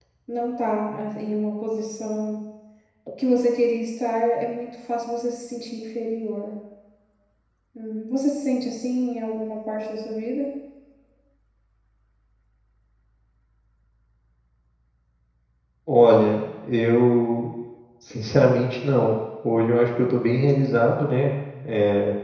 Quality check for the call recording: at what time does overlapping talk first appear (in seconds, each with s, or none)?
none